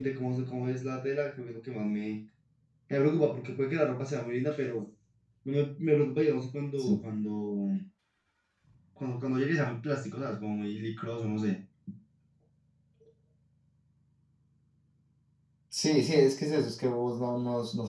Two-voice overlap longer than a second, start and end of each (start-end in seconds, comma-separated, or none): none